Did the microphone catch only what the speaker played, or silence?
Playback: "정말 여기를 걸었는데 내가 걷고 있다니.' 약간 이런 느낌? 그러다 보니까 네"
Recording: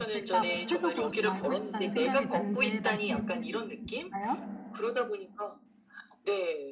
No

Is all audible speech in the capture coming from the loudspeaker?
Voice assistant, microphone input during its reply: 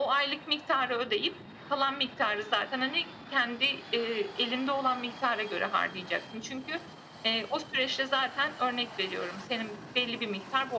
Yes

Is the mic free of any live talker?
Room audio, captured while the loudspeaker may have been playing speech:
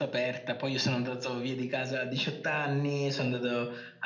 Yes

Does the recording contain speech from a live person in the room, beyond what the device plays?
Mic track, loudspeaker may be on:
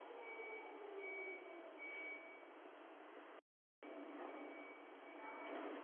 No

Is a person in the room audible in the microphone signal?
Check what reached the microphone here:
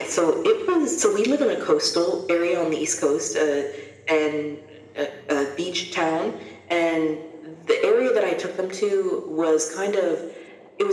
No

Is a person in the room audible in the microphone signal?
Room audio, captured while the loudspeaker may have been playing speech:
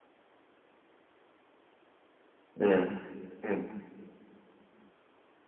Yes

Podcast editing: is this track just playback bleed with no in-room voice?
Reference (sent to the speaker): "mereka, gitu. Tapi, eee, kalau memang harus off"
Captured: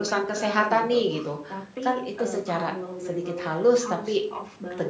No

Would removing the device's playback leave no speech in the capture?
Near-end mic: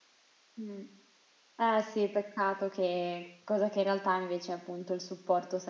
No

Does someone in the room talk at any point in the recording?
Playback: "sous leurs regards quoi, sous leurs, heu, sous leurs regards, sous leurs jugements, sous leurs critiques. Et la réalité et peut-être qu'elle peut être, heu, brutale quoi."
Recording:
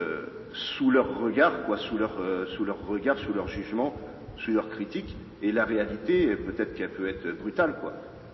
No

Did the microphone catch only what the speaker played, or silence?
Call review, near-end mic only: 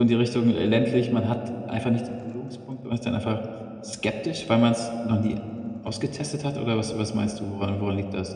No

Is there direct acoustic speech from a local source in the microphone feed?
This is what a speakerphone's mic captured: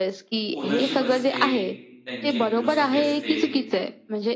Yes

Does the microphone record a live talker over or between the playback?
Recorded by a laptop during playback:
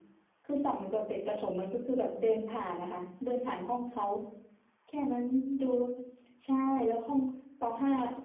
No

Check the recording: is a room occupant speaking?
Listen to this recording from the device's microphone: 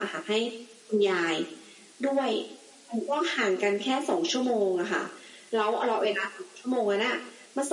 No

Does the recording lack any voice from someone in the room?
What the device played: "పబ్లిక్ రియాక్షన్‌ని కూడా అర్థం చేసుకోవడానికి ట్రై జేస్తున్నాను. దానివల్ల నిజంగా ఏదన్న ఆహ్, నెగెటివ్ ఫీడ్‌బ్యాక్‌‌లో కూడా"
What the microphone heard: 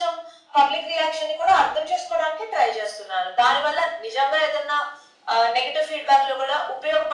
Yes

